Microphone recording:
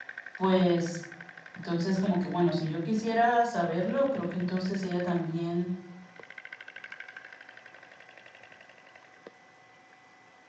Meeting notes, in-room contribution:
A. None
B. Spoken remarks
B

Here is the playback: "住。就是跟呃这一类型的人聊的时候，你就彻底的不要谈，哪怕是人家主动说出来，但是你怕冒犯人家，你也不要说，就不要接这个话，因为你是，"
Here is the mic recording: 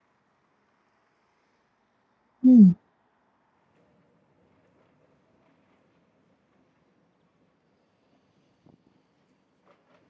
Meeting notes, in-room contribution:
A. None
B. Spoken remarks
B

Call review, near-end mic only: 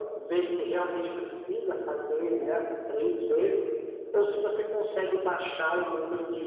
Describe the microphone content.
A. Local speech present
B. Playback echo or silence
B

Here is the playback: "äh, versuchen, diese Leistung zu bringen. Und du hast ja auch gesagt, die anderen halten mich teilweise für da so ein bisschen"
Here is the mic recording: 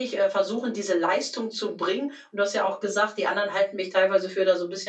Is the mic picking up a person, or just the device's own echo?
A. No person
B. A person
A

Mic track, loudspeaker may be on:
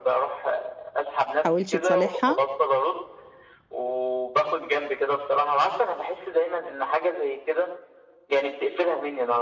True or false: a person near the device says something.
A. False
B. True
B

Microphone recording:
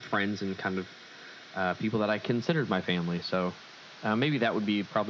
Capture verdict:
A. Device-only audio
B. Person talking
A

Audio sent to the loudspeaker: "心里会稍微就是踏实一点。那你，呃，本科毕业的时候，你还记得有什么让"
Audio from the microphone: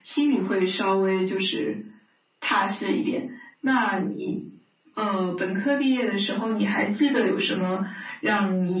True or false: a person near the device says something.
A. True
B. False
B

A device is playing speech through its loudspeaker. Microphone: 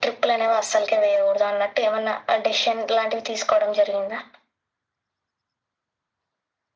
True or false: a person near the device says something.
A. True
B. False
B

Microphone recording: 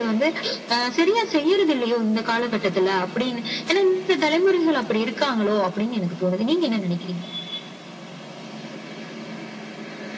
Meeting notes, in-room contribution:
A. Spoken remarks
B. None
B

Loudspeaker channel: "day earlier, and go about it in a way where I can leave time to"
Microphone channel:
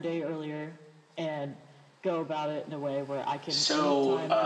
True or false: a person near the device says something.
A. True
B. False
A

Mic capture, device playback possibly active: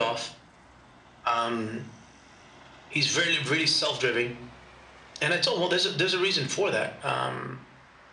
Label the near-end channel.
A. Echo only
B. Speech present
A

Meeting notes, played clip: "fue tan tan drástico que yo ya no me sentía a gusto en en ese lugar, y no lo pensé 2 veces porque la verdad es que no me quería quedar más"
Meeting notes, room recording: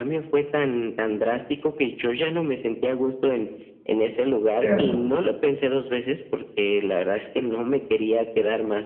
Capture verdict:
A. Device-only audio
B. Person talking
B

